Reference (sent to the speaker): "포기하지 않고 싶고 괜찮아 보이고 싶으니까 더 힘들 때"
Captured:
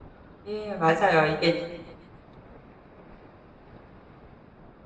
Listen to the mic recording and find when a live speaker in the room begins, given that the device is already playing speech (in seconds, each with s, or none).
0.4 s